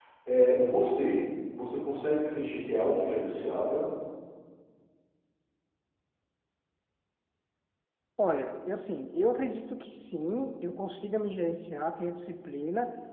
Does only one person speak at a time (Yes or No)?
Yes